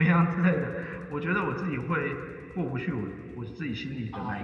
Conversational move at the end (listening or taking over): taking over